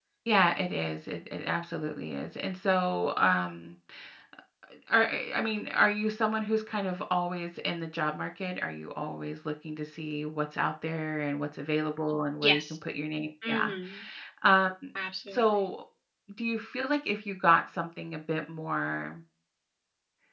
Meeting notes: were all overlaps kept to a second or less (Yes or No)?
Yes